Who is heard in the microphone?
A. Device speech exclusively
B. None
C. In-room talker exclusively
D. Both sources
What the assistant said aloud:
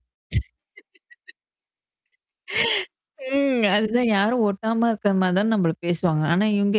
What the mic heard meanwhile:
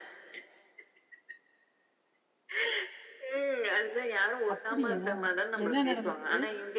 D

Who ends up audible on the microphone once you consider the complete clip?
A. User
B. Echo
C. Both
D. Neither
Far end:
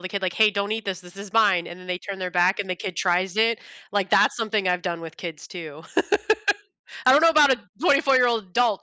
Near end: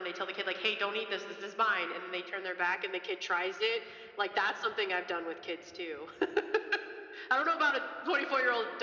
B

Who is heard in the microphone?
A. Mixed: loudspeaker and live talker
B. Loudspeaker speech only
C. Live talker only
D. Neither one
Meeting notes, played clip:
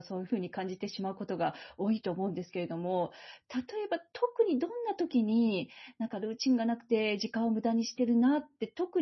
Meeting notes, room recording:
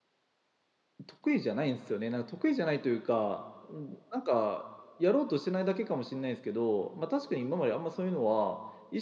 C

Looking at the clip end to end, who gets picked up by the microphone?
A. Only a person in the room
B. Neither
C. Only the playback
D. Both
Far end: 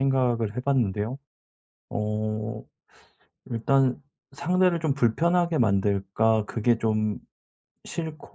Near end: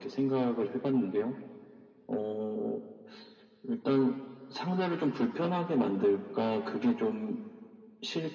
C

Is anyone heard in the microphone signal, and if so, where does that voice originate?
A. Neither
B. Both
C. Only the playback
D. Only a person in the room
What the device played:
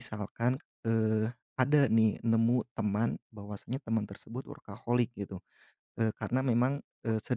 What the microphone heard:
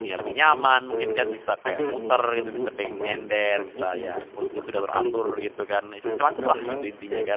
B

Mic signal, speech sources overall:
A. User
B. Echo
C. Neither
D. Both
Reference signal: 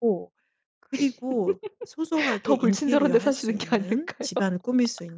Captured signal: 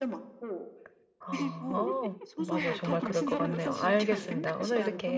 D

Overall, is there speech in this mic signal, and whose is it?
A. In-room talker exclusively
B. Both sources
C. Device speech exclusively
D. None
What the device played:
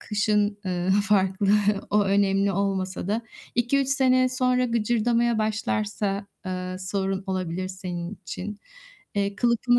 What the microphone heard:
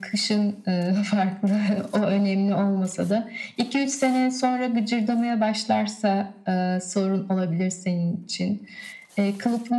C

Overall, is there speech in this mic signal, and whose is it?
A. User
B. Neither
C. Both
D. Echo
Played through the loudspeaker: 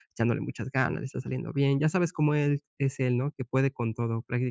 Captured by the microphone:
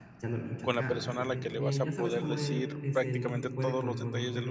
C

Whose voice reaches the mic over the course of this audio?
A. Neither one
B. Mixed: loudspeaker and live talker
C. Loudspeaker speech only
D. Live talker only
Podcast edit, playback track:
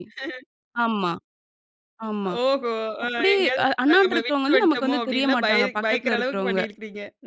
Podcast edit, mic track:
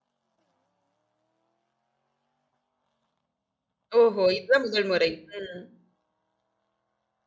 D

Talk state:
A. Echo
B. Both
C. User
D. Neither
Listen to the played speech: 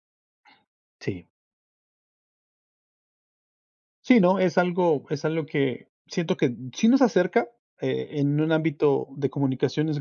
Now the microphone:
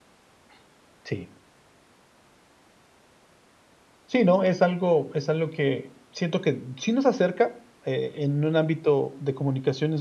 A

